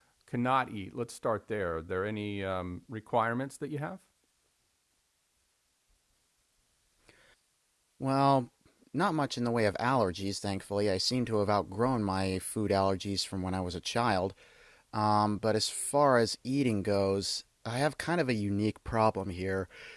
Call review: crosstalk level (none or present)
none